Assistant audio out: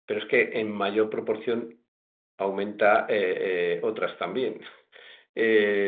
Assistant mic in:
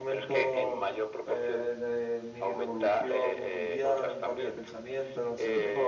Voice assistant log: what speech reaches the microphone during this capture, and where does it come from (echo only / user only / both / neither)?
both